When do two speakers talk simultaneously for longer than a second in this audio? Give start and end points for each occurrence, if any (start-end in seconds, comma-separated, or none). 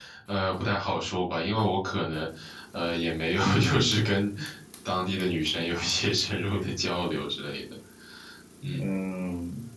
none